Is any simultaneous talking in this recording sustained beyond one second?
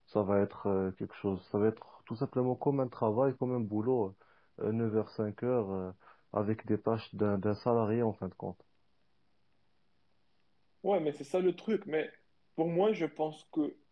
No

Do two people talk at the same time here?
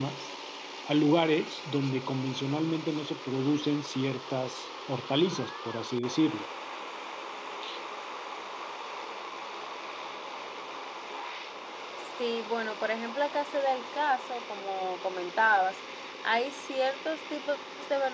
No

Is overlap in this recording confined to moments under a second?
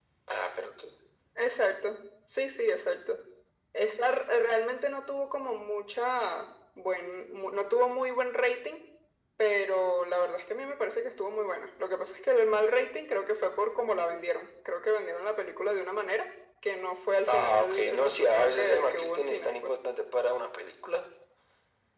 No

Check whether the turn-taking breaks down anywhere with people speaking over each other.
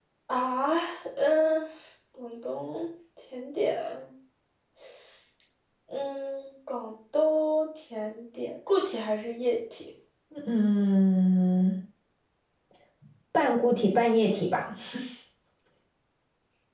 No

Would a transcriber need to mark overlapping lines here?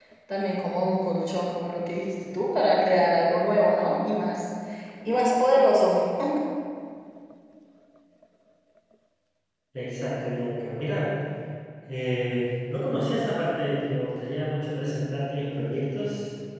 No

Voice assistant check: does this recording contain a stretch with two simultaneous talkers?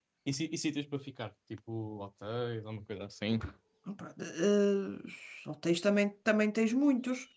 No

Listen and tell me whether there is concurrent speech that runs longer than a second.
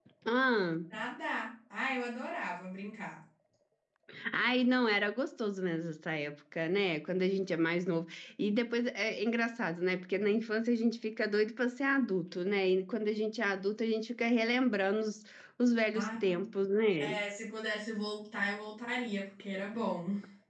No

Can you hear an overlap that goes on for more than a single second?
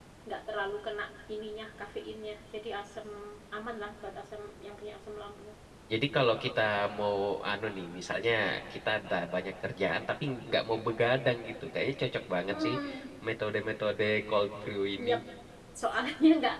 No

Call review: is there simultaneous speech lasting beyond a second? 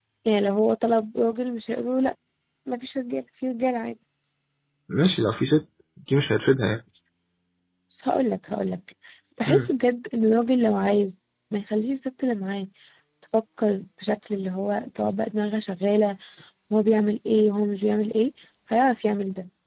No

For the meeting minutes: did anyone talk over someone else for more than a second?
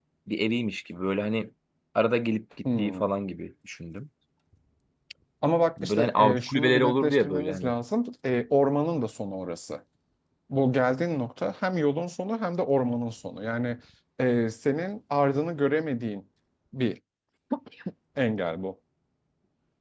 Yes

